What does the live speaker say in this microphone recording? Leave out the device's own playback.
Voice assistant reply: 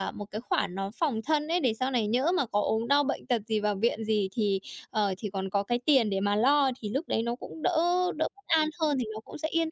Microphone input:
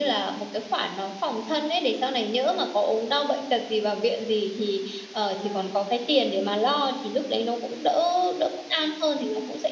À,

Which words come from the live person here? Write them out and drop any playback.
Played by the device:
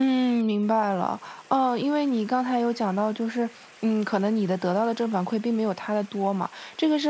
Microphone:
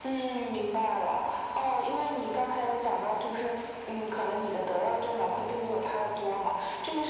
none

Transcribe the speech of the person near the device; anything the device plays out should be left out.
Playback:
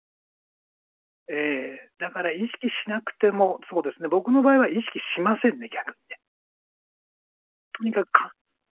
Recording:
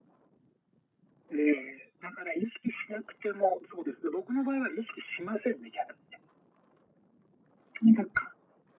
none

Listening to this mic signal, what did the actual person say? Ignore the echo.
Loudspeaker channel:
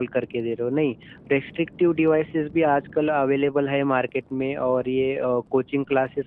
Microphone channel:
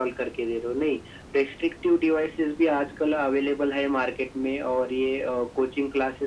none

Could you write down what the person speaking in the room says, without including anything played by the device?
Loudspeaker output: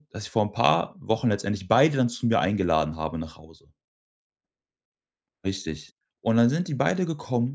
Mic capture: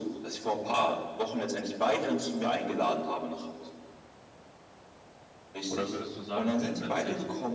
Oder würdest du sagen, grundsätzlich

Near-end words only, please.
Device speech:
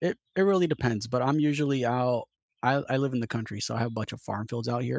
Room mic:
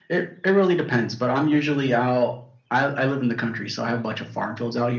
none

